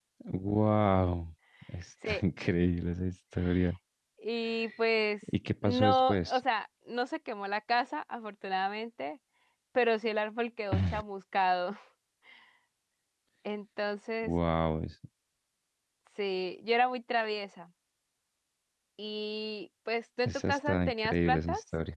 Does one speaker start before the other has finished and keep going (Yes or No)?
Yes